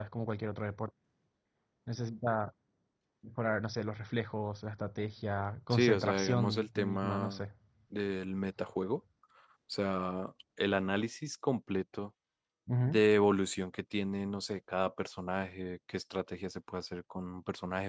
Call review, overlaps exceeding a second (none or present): present